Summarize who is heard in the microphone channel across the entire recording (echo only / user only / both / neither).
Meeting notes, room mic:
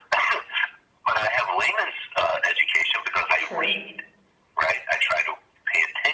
both